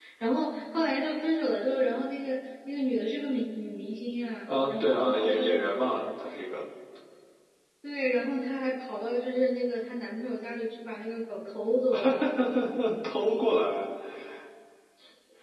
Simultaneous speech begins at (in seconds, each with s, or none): 4.5 s